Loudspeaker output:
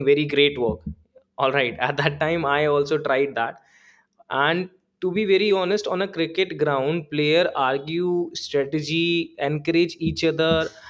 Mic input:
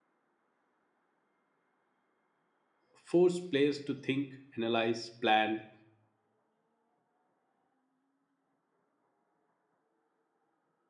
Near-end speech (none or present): present